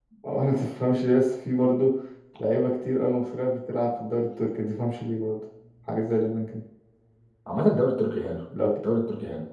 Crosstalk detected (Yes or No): No